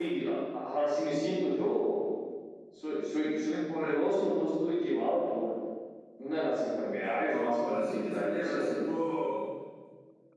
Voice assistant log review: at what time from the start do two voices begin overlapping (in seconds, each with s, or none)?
7.2 s